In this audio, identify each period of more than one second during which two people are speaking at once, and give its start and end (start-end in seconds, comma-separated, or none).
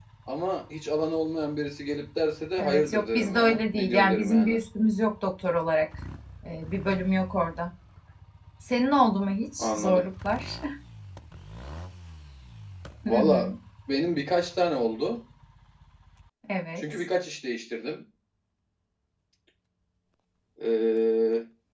2.6-4.6